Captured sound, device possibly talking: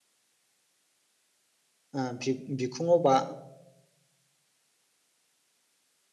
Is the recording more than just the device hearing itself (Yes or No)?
Yes